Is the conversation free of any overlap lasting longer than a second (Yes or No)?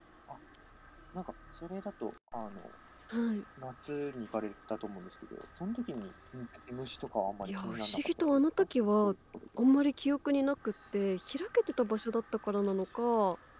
No